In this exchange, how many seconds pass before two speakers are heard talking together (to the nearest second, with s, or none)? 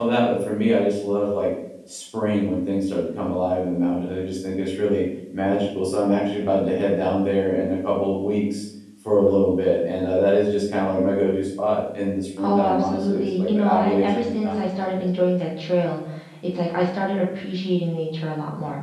12 s